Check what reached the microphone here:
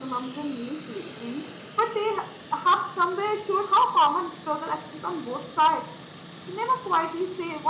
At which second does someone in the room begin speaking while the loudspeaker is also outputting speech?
none

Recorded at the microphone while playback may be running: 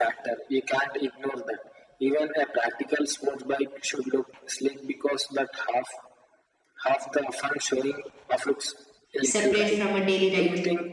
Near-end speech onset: 9.2 s

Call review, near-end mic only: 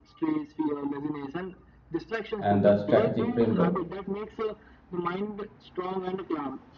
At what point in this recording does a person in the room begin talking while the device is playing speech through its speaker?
2.4 s

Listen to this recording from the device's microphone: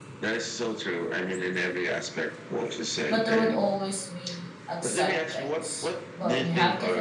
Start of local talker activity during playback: 3.1 s

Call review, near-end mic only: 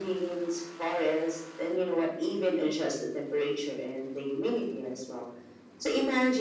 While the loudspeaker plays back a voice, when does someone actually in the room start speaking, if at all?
none

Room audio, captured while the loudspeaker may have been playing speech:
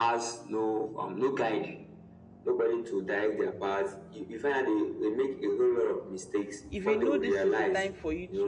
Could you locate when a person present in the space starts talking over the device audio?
6.7 s

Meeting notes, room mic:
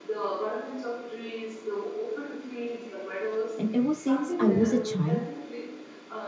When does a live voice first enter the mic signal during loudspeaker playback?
3.6 s

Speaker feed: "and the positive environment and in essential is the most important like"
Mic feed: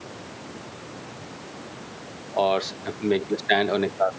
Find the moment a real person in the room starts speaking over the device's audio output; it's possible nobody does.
2.3 s

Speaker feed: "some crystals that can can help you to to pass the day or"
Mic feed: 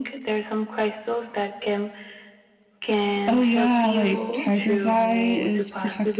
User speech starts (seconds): 3.3 s

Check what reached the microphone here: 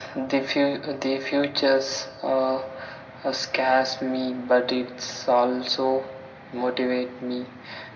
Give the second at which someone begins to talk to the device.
none

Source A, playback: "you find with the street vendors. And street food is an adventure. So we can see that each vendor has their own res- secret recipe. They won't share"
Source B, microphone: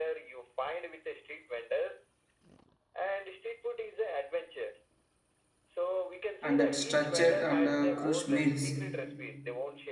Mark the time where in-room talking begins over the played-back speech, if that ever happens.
6.4 s

